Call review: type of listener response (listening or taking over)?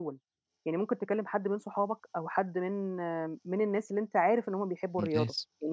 listening